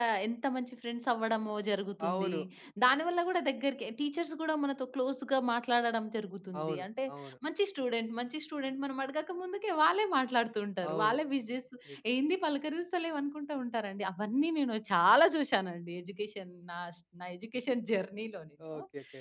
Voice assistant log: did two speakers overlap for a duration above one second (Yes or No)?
No